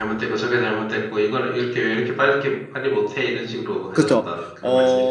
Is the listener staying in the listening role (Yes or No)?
No